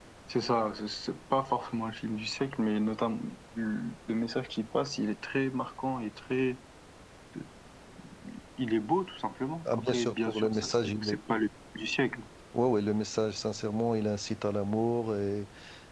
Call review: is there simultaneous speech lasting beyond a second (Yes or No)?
Yes